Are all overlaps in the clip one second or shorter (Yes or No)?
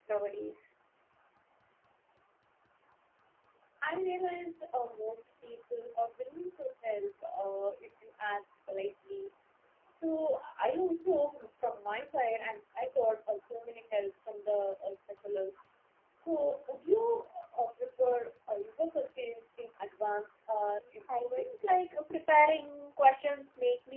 Yes